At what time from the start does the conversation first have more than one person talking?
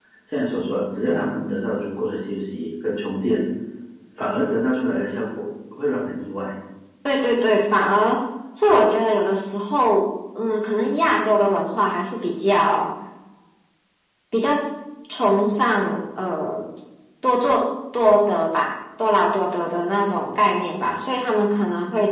none

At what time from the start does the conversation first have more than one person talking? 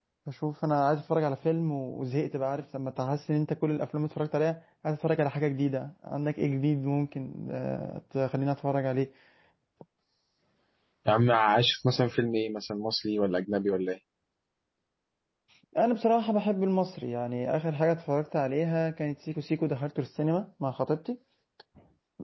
none

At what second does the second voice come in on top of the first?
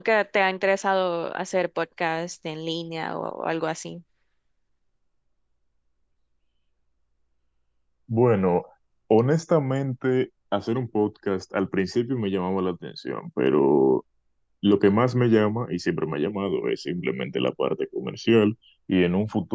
none

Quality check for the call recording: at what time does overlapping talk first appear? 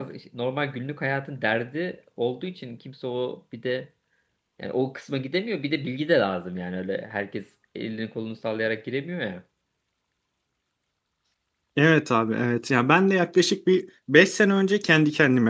none

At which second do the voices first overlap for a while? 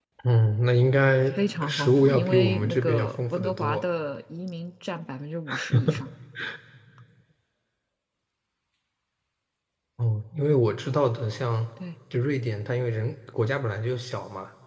1 s

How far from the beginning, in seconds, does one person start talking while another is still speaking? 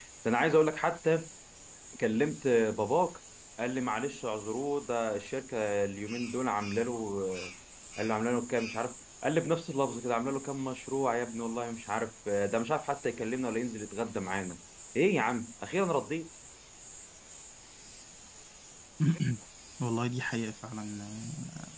none

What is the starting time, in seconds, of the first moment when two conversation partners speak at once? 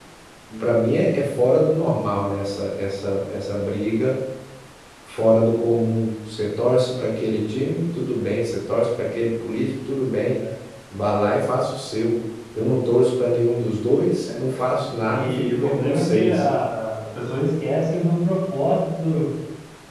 15 s

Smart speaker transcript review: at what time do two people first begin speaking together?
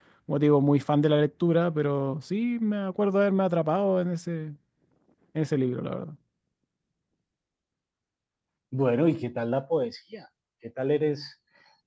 none

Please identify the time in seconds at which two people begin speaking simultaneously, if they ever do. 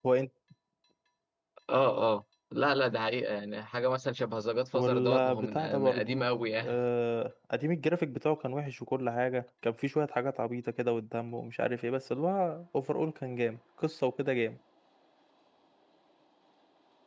5 s

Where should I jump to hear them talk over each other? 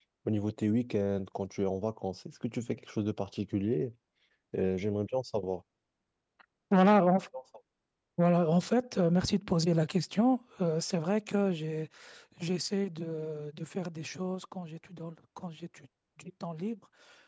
none

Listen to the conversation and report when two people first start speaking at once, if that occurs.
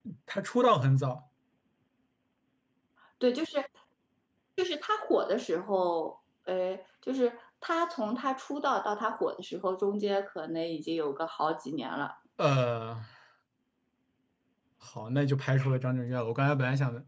none

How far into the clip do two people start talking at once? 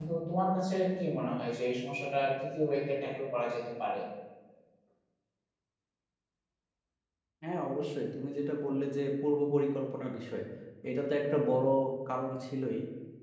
none

